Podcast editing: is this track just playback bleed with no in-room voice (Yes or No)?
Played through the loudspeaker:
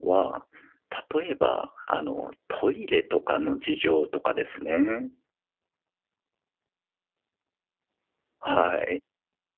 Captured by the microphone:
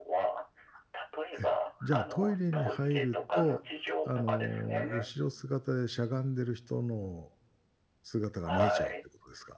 No